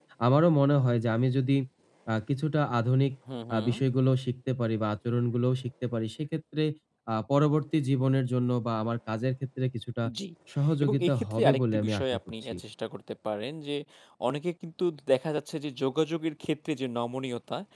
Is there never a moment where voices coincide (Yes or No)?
No